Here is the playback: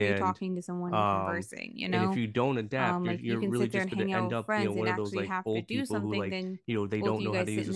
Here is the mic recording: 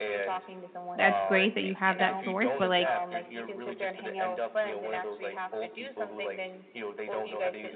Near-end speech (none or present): present